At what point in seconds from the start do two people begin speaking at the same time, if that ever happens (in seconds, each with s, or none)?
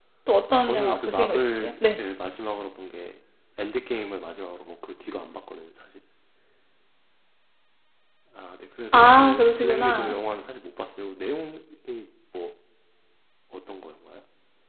0.7 s